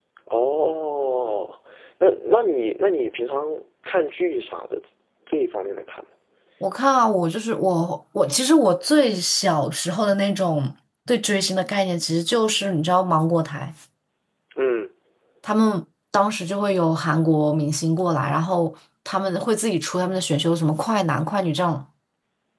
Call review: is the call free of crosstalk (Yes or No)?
Yes